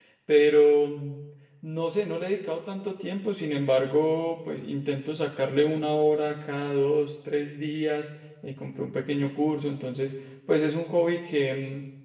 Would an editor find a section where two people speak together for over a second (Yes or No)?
No